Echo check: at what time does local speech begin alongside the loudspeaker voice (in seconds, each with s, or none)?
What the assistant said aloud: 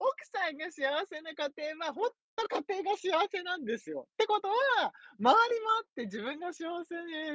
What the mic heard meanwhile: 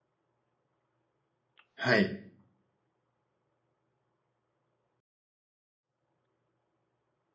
1.8 s